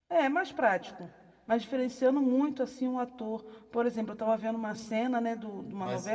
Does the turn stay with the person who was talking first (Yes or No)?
Yes